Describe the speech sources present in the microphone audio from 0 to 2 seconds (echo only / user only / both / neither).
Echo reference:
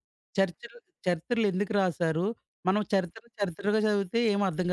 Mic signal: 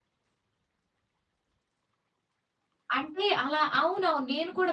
neither